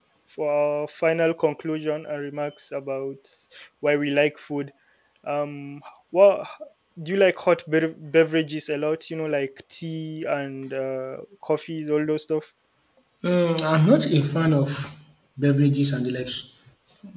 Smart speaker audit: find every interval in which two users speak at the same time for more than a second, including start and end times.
none

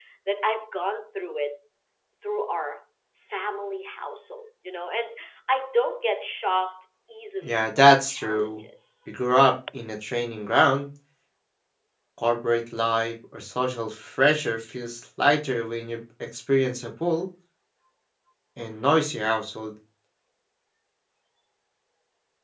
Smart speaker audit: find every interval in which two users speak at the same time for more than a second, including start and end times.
7.4-8.6

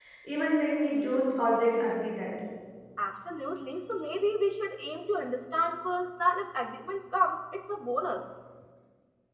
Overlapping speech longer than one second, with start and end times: none

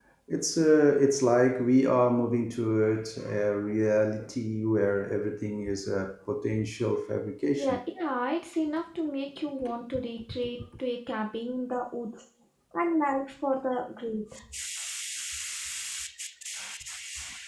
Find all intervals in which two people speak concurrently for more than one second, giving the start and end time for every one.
none

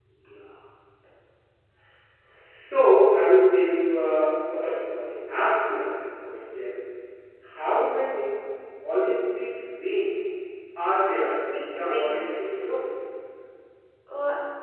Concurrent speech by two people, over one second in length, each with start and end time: 11.1-12.8

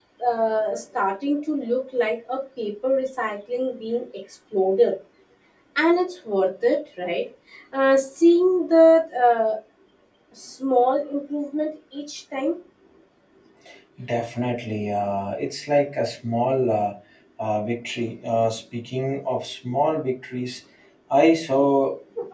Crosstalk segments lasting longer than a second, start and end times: none

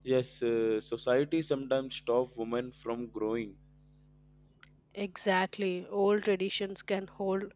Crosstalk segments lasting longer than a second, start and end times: none

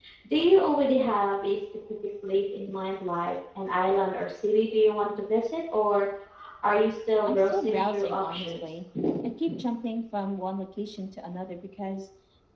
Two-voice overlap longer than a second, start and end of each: 7.3-8.6

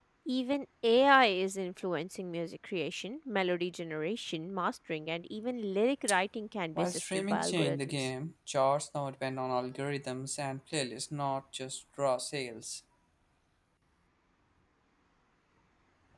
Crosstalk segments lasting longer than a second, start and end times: 6.8-8.1

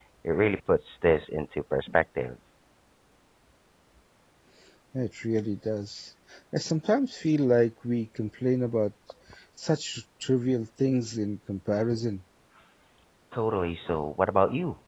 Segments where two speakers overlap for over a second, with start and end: none

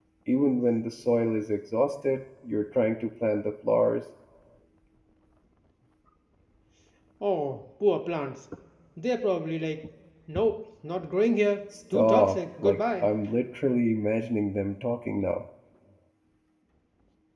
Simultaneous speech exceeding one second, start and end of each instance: 11.9-13.1

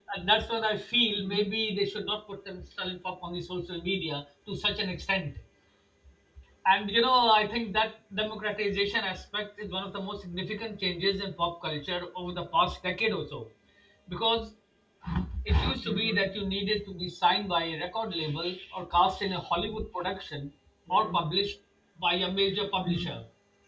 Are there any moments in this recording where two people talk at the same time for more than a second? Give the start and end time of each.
none

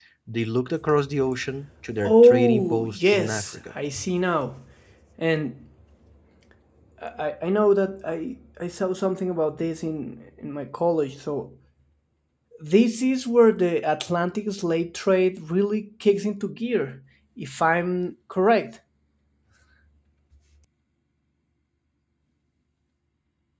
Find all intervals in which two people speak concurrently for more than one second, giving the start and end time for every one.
2.0-3.5

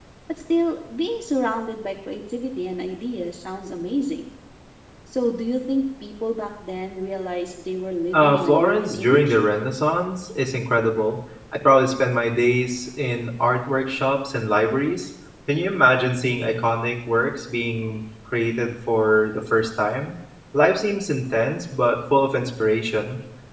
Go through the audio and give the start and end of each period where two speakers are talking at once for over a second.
8.1-9.4

